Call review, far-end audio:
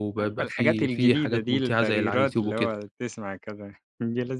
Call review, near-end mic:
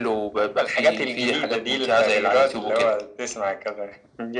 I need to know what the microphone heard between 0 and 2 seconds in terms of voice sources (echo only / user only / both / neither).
echo only